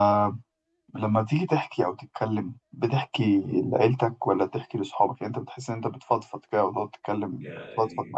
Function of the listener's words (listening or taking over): taking over